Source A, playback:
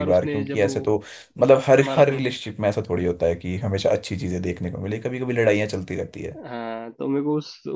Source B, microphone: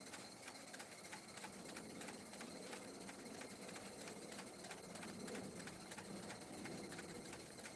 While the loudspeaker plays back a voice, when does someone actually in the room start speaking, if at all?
none

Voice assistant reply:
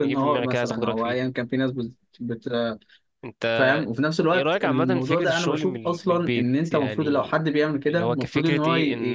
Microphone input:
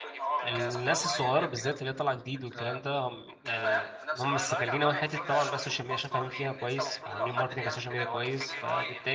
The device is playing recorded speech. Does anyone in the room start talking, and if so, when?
0.4 s

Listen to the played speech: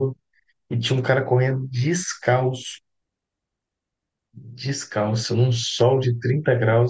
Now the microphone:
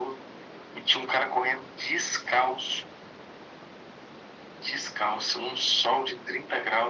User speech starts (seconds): none

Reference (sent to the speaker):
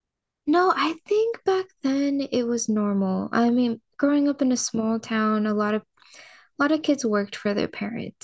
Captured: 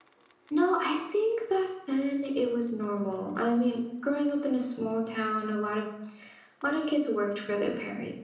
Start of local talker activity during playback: none

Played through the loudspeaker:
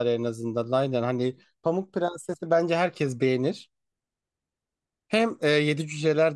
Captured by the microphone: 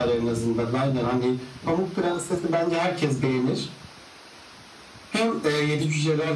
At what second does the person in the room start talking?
none

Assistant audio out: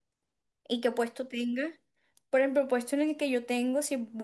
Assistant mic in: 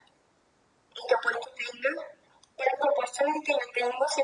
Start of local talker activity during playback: none

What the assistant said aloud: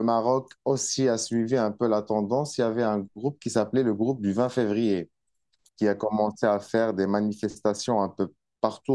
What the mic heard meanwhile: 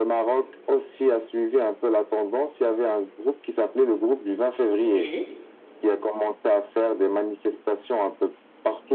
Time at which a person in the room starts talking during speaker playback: 4.8 s

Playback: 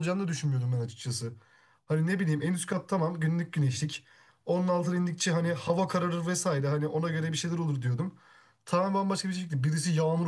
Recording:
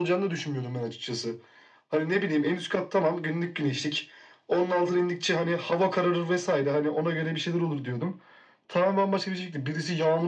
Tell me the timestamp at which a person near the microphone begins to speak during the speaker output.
none

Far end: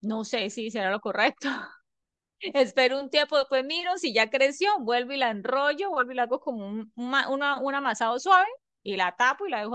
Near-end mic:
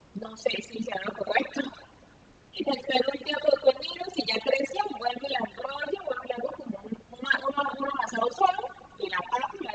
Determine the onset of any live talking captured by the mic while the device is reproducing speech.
none

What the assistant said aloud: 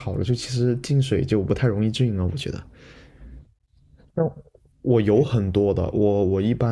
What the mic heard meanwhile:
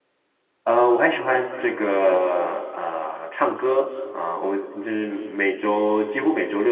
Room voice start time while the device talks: 0.6 s

